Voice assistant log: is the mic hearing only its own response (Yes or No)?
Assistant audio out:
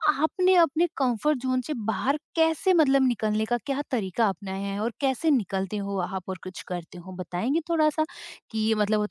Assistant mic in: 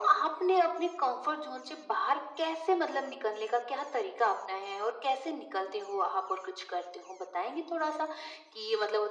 Yes